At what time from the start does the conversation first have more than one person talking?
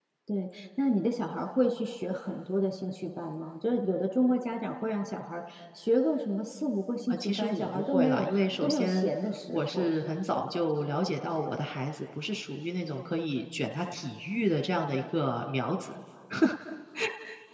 7.1 s

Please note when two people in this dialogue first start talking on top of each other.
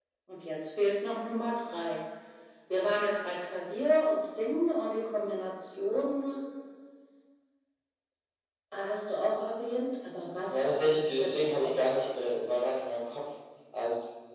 10.5 s

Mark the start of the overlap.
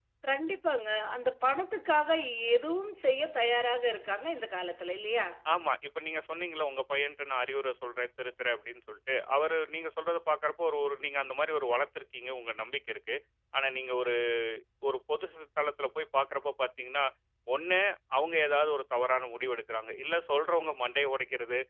none

